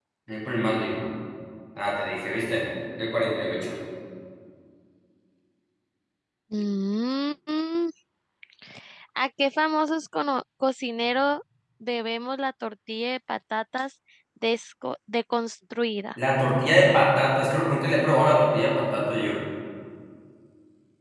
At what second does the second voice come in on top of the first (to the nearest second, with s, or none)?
none